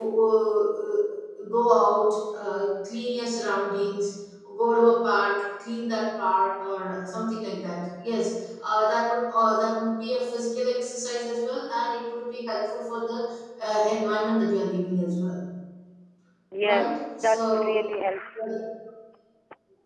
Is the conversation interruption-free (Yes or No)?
No